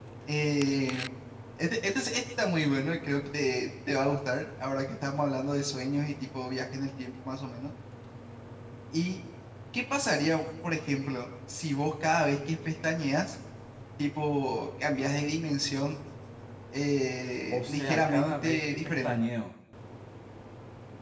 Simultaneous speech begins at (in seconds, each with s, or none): 17.5 s